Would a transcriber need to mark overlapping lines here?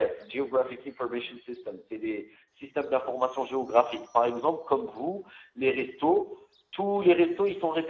No

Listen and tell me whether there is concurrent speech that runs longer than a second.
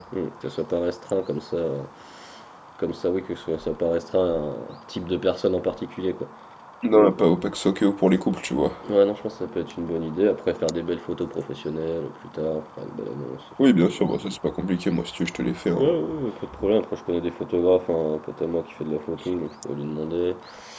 No

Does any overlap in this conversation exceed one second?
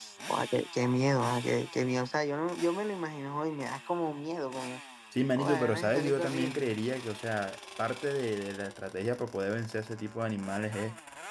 Yes, from 5.4 s

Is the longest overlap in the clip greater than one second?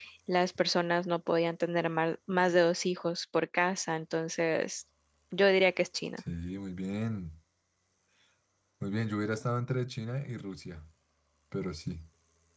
No

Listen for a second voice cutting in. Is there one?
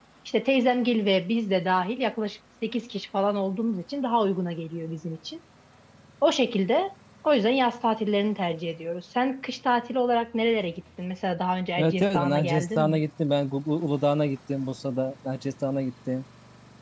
Yes, from 11.8 s

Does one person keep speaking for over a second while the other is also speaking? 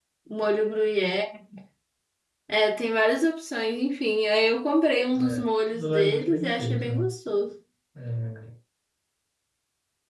Yes, from 5.1 s

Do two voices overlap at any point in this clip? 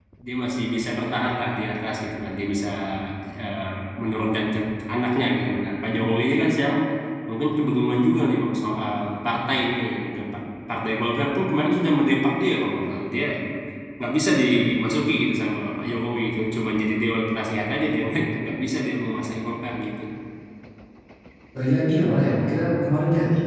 No

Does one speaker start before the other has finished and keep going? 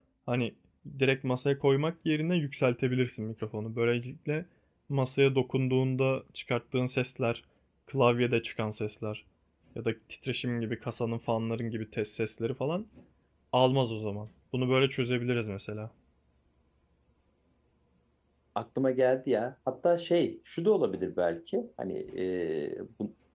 No

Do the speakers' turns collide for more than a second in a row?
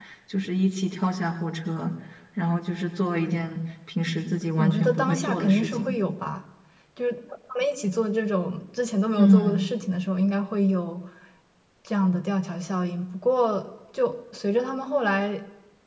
Yes, from 4.6 s

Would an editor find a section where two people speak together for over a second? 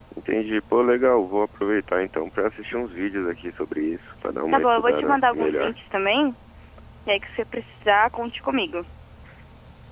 Yes, from 4.5 s

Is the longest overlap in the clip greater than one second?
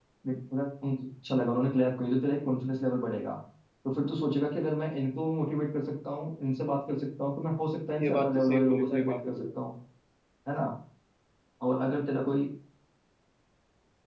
Yes, from 8.0 s

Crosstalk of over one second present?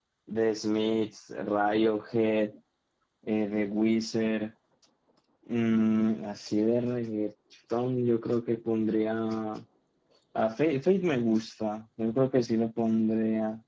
No

